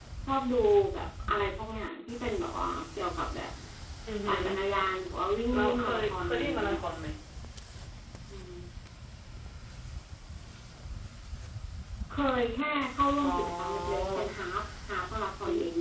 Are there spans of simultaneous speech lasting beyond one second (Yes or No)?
Yes